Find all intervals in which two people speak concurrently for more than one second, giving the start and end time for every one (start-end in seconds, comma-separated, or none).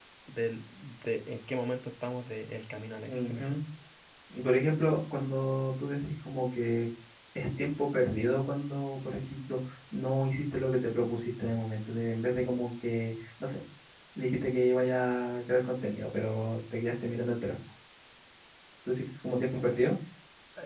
none